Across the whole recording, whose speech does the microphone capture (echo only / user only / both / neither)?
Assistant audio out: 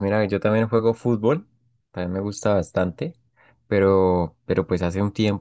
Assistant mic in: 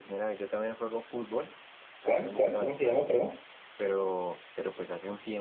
both